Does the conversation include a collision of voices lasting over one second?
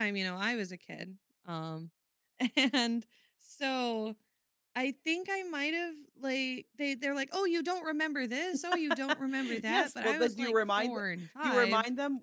Yes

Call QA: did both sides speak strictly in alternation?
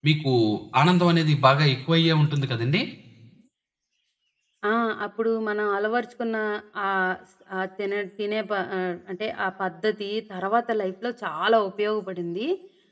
Yes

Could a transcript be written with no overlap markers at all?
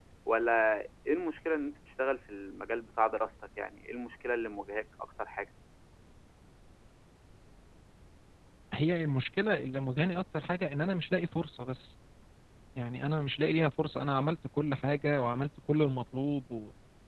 Yes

